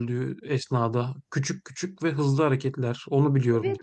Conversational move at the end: taking over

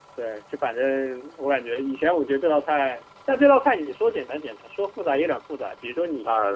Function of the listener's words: listening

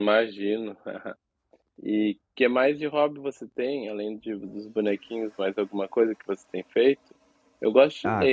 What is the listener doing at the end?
taking over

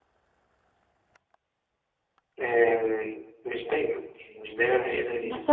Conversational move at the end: taking over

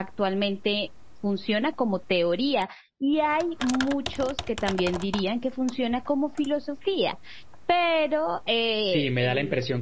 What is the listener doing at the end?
taking over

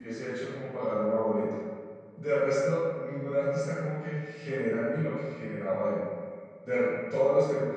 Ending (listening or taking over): listening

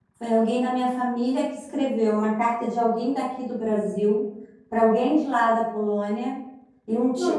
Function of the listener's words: listening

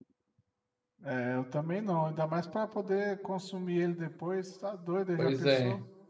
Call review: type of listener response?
taking over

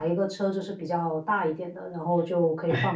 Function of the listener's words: listening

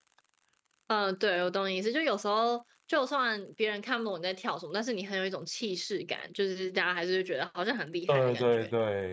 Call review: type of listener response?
taking over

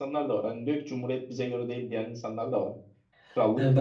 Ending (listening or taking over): taking over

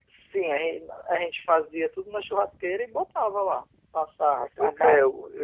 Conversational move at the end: taking over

